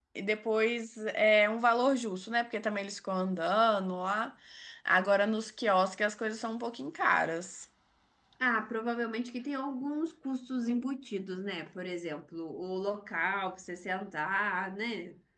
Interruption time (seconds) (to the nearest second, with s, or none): none